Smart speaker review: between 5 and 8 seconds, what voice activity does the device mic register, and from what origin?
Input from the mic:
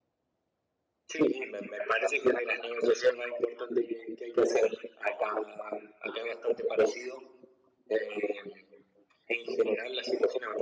echo only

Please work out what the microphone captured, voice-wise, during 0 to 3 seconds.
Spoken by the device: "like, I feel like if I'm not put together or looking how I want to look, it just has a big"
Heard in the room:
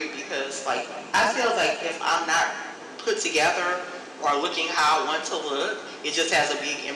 echo only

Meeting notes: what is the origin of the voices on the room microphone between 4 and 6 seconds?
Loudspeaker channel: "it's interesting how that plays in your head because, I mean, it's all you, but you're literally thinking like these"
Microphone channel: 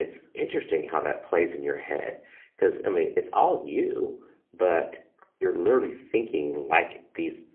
echo only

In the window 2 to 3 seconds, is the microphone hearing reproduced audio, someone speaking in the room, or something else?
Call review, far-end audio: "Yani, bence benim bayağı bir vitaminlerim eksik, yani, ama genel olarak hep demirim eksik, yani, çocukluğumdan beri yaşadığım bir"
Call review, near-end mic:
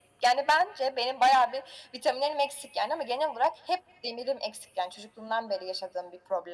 echo only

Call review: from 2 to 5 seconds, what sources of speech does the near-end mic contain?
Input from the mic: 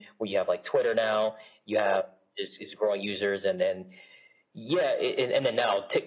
echo only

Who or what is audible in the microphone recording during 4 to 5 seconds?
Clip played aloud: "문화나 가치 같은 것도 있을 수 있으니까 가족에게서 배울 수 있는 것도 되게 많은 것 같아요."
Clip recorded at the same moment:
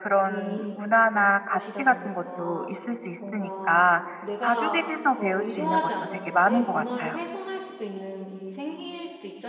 both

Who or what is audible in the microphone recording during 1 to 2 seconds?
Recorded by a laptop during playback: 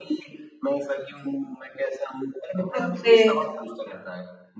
echo only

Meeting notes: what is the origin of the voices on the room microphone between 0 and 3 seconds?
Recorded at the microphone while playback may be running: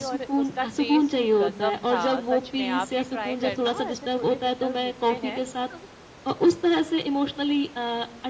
both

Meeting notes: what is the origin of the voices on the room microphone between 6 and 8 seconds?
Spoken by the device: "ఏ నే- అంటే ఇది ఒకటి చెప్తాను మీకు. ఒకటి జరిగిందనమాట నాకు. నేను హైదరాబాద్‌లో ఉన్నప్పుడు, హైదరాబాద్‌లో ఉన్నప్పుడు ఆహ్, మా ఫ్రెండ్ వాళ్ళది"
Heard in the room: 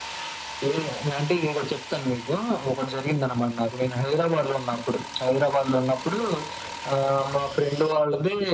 echo only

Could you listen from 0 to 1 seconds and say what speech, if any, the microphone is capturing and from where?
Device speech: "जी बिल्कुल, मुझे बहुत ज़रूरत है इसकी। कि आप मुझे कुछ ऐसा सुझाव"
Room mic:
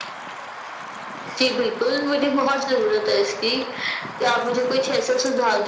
neither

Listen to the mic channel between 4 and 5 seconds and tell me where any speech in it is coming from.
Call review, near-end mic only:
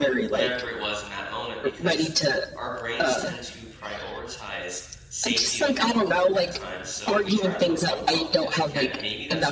user only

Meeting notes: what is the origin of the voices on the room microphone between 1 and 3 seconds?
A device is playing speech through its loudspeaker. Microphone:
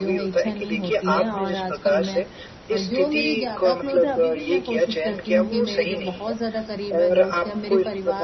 both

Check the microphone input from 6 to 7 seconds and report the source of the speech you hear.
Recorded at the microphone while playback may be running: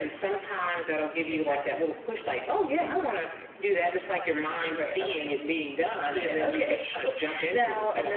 echo only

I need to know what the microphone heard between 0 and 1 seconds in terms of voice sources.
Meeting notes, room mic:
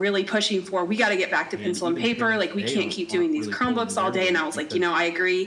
echo only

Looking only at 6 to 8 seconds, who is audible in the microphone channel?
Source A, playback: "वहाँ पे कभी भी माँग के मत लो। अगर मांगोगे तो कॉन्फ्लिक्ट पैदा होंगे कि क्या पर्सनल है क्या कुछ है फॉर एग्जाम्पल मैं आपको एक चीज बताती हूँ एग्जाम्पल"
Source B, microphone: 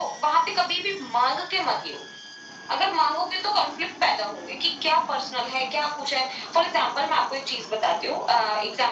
echo only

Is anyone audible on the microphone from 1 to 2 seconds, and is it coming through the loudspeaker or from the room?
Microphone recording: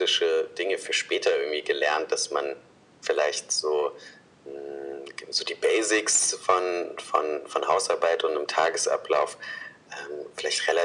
echo only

